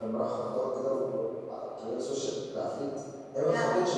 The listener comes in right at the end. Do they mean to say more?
No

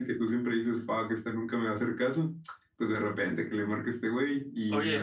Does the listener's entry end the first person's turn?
Yes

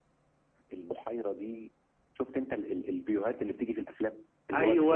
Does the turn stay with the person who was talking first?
Yes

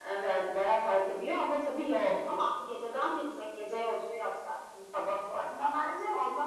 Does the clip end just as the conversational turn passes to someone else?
Yes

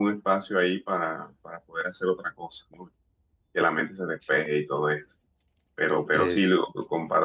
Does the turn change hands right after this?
No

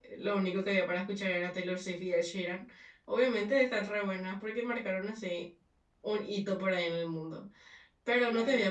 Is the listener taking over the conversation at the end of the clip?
No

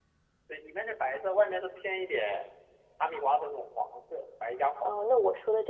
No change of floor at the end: No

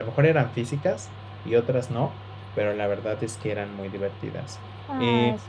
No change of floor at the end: Yes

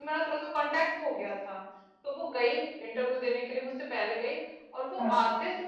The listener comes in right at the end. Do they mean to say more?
No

